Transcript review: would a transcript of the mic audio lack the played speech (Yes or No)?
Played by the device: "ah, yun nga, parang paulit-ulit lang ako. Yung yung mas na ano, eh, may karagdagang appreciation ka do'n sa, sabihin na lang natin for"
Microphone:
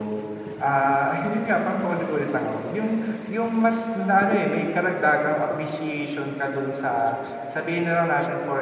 No